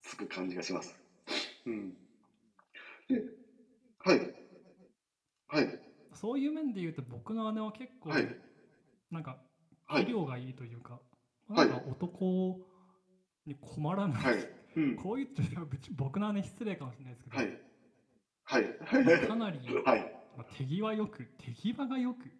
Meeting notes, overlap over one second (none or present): none